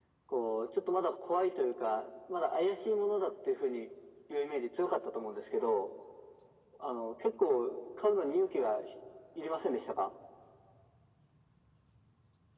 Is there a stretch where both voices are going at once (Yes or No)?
No